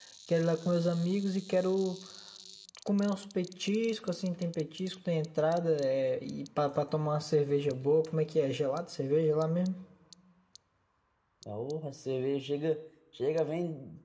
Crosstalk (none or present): none